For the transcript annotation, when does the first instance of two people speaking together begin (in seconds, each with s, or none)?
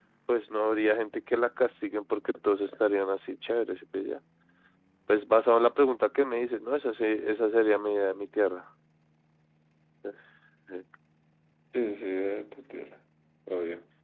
none